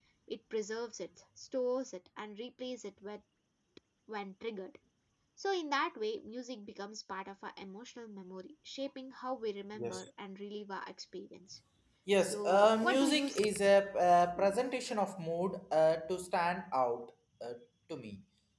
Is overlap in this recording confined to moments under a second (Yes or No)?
No